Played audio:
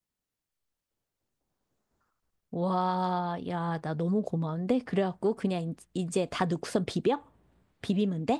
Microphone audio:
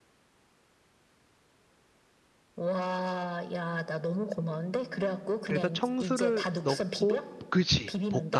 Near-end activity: present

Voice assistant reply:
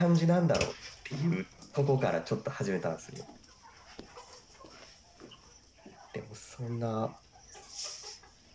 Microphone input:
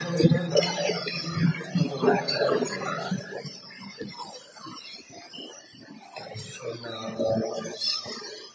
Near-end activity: none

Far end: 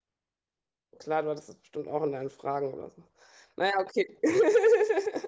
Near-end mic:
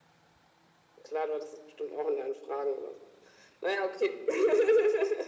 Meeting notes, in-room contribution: none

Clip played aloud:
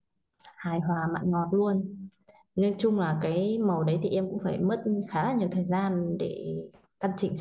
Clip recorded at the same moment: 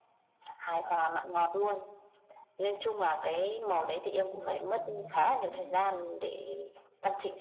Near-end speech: present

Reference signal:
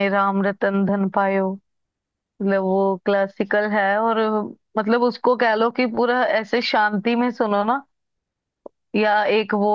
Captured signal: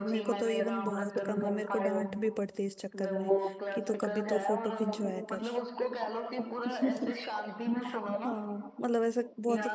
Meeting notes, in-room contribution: present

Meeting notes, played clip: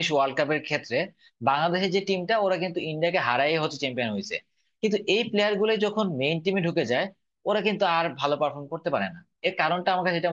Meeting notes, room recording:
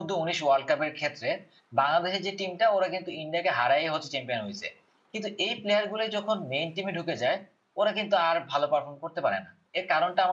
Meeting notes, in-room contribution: none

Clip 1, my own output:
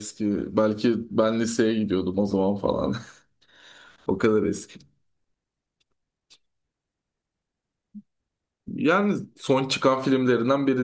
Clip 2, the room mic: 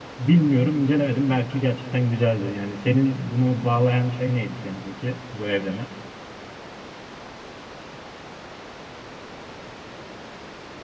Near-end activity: present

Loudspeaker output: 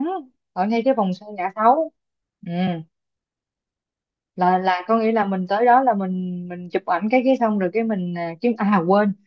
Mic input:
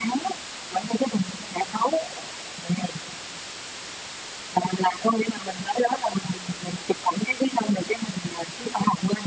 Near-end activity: none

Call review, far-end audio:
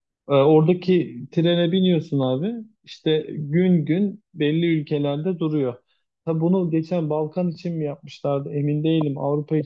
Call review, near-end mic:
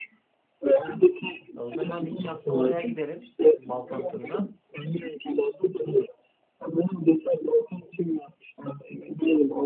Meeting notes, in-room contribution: present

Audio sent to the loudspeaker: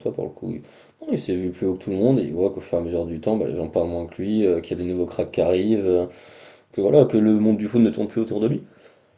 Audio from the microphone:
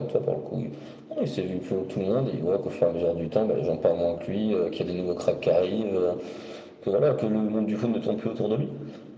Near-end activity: none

